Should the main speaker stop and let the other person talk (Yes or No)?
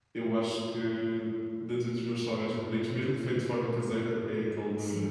No